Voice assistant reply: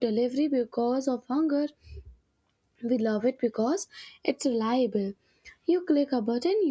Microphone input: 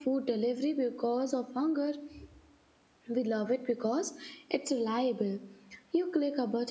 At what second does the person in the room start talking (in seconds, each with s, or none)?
none